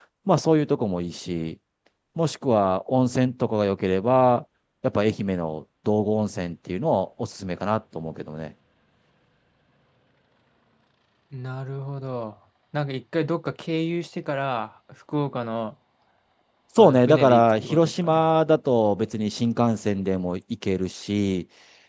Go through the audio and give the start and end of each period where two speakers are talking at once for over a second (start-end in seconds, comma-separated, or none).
16.8-18.2